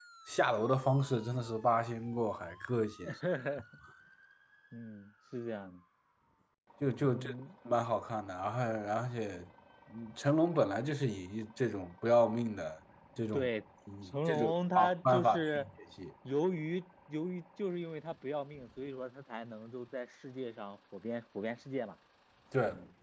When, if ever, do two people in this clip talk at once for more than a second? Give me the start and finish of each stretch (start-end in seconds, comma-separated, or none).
14.1-15.7